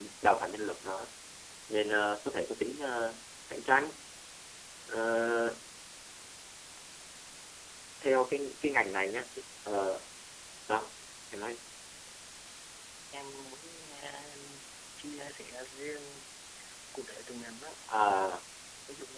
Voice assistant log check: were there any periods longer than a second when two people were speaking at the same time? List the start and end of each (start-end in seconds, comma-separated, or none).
none